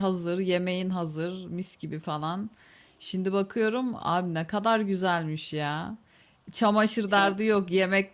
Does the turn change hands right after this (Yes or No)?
No